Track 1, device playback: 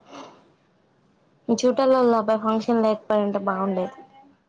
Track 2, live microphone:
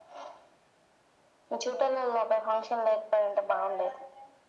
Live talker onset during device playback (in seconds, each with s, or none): none